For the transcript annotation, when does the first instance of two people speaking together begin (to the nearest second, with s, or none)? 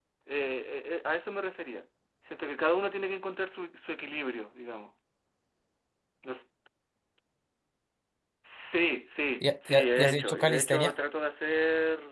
9 s